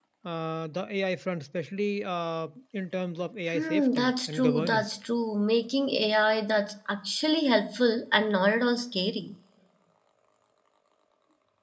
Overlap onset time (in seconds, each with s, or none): 3.5 s